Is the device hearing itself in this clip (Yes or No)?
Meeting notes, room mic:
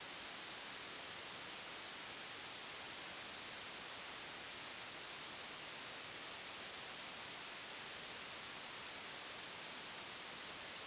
No